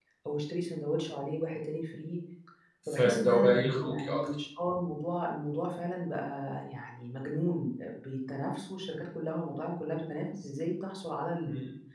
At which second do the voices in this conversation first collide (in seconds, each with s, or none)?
2.9 s